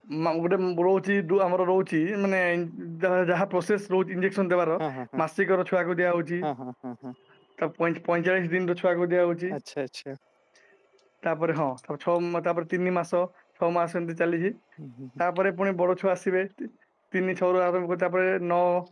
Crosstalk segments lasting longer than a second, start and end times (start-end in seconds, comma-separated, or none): none